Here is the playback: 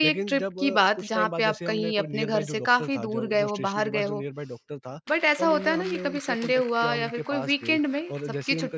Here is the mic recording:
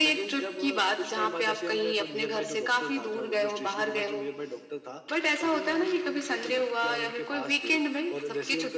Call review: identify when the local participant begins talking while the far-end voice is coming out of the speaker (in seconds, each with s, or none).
none